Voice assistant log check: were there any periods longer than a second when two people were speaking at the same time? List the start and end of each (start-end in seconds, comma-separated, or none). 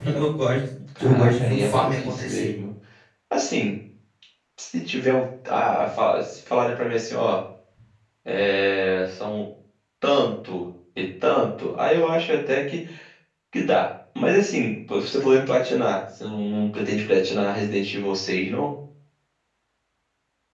1.0-2.5